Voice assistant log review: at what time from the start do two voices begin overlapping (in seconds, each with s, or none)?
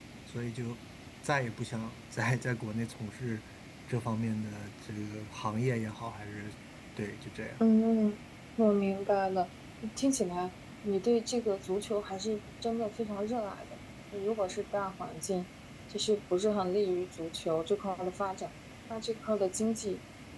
none